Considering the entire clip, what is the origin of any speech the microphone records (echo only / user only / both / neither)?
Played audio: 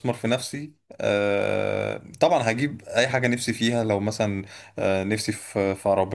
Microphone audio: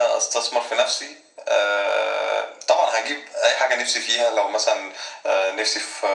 echo only